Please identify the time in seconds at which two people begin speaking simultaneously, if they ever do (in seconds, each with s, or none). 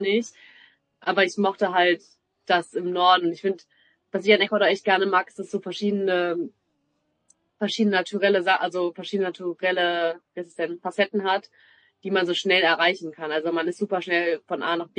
none